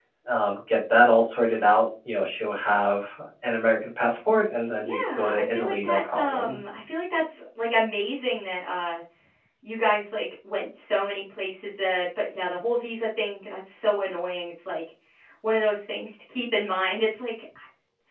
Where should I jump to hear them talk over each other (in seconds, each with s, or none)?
4.8 s